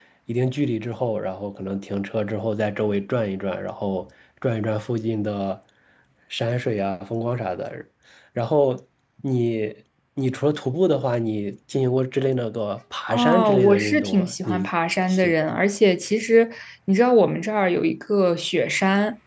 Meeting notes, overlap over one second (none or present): present